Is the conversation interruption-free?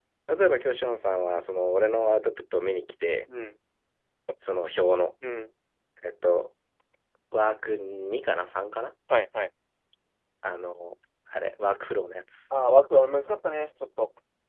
Yes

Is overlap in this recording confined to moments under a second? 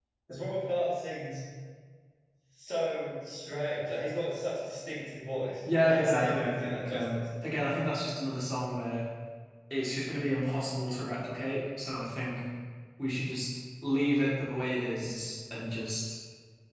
No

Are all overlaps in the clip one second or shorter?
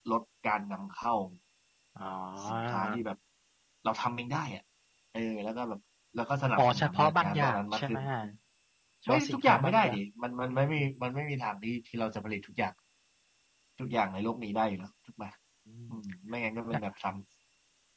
No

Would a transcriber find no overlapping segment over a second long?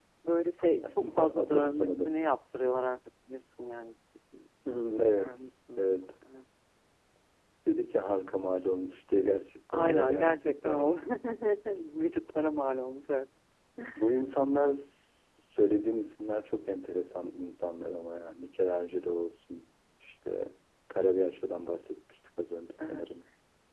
No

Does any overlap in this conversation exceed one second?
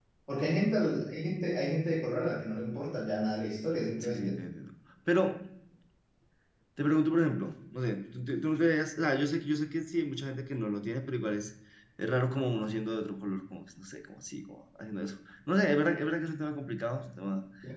No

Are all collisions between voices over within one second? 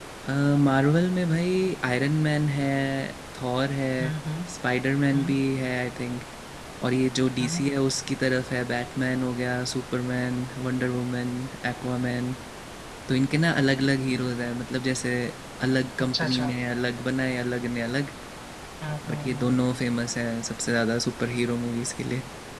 Yes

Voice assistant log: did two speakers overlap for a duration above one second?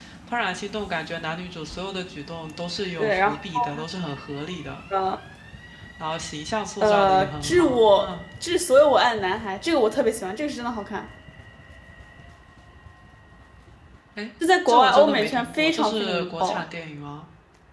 Yes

